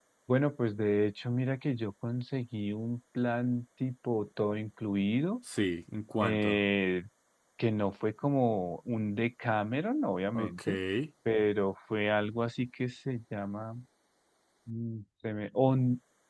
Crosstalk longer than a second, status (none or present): none